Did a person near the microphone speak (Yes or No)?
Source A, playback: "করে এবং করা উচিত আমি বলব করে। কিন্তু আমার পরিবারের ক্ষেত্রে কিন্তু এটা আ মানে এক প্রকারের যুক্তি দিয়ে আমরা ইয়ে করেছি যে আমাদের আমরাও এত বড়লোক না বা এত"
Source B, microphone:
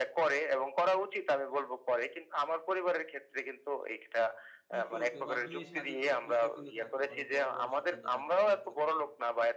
Yes